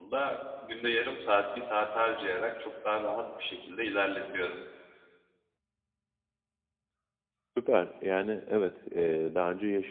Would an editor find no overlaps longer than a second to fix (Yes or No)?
Yes